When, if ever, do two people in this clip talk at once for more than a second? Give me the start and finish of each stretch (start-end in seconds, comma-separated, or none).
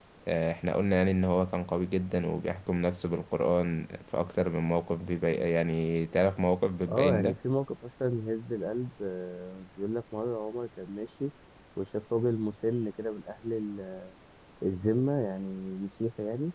none